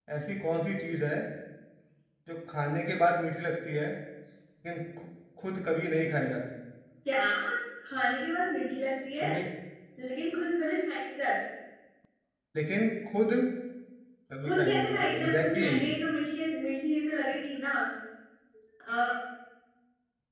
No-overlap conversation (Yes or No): No